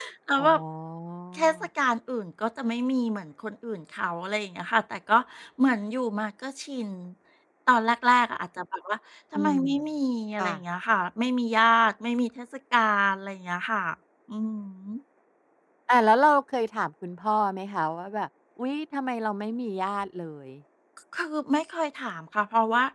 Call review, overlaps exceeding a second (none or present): none